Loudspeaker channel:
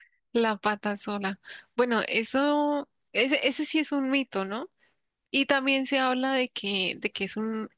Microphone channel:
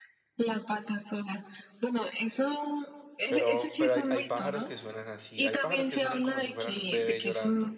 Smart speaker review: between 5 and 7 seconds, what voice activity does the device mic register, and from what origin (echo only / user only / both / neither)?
both